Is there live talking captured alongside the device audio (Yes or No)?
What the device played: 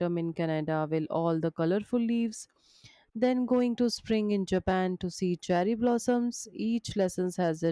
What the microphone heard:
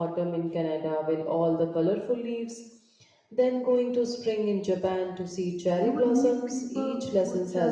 Yes